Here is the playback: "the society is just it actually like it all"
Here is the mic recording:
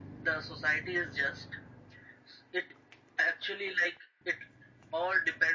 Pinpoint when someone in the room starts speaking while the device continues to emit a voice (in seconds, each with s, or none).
none